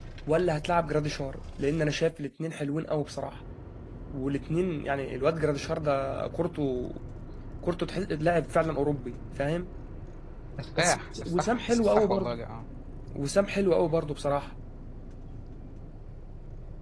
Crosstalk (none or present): present